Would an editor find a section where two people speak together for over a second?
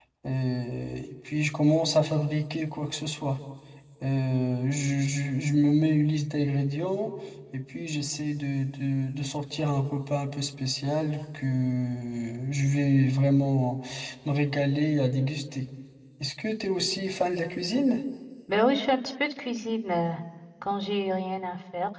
No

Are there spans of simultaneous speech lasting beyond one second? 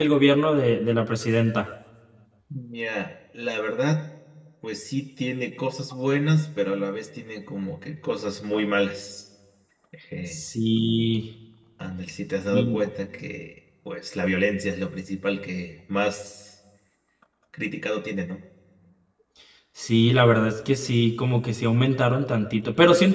No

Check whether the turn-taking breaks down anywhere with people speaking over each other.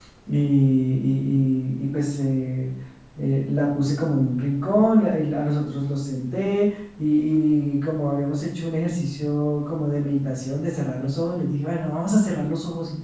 No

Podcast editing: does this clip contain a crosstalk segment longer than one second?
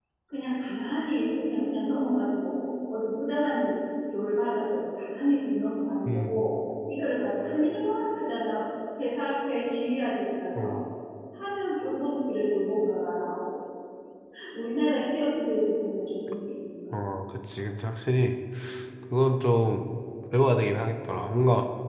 No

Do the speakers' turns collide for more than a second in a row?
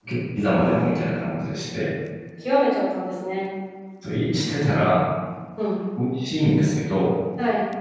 No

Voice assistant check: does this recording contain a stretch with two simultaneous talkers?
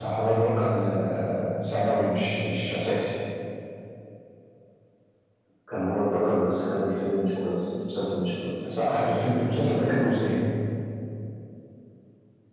No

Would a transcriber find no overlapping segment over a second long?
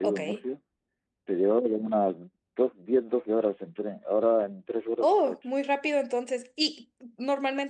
Yes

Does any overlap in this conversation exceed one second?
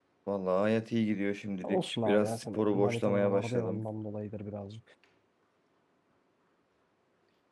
Yes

